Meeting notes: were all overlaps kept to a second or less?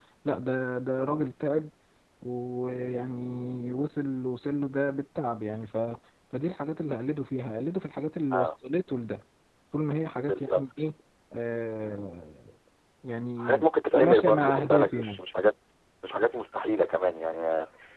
No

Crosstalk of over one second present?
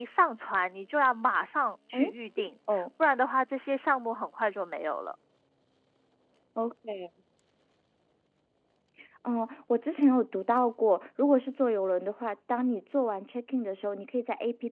No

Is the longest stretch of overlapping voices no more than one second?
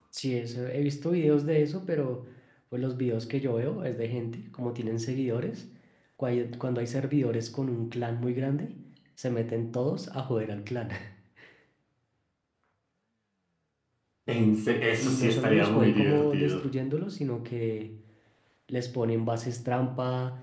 No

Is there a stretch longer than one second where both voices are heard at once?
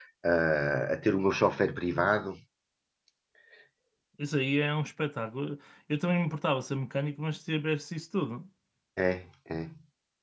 No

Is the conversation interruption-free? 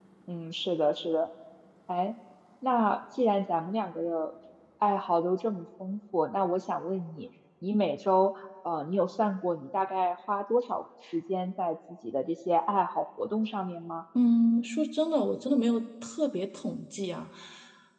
Yes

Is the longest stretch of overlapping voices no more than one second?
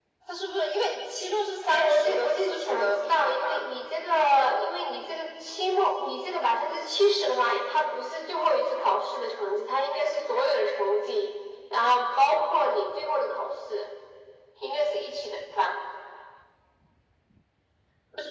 No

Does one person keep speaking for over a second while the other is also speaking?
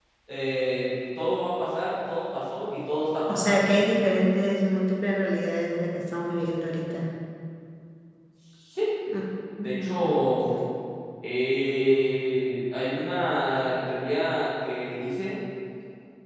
No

